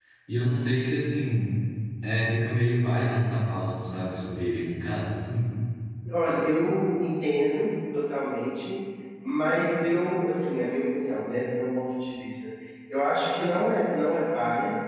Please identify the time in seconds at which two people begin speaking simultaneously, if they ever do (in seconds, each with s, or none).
none